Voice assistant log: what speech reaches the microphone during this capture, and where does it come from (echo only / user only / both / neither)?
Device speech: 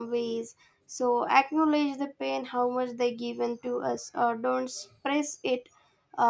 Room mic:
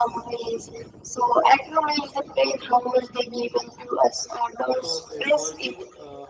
both